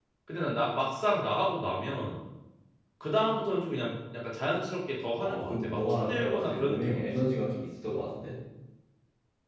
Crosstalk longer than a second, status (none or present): present